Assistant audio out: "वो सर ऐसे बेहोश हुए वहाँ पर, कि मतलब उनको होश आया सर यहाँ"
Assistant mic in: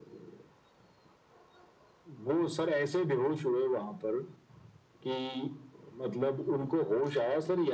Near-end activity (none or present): none